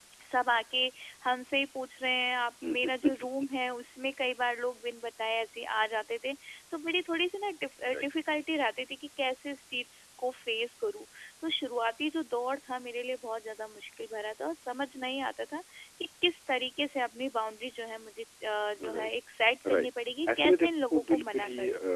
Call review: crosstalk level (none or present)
present